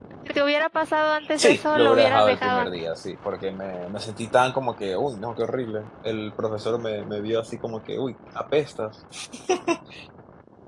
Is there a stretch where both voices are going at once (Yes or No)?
Yes